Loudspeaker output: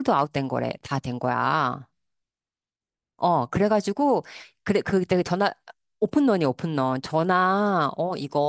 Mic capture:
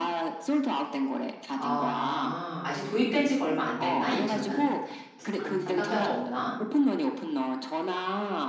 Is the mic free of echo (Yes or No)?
No